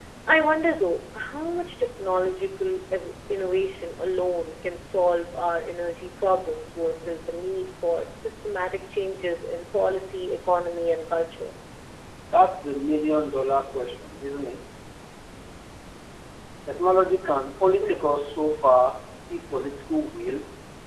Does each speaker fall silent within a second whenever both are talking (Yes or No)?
Yes